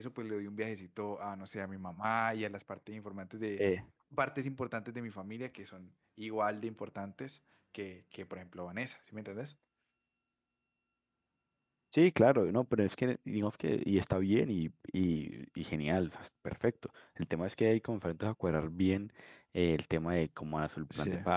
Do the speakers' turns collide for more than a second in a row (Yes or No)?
No